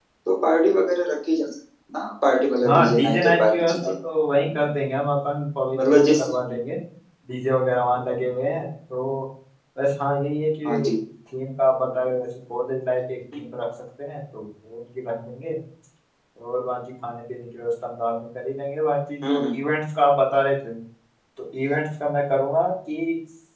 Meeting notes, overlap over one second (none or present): present